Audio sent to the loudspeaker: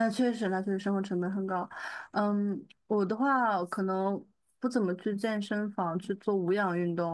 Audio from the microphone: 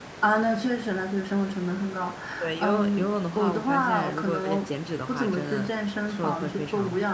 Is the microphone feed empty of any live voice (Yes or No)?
No